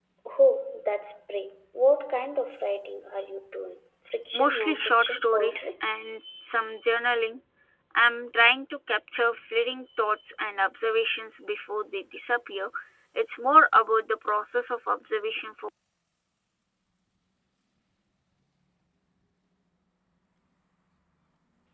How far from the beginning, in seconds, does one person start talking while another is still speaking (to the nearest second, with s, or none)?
4 s